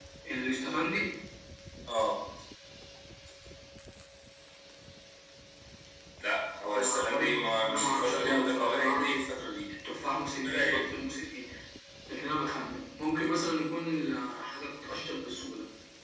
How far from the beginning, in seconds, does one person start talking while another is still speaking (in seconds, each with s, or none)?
6.7 s